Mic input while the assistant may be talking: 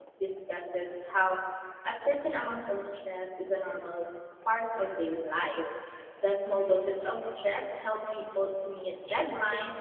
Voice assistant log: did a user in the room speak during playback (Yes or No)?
Yes